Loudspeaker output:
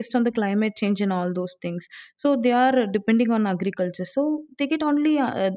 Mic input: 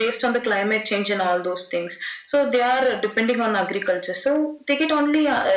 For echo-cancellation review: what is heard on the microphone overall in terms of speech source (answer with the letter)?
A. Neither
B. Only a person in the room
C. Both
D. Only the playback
D